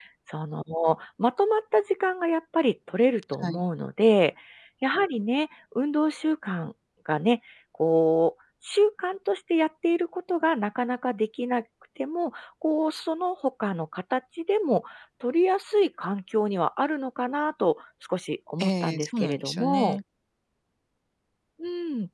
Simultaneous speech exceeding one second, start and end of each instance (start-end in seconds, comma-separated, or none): 18.6-20.0